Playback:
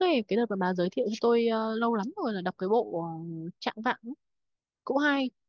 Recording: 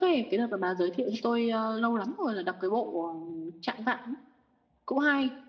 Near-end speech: none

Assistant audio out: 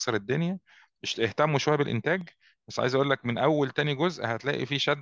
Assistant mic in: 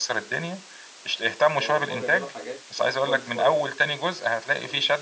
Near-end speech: present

